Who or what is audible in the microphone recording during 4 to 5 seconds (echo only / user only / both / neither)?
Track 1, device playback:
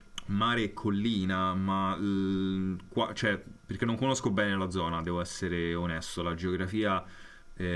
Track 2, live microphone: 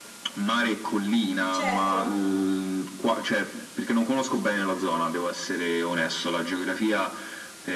echo only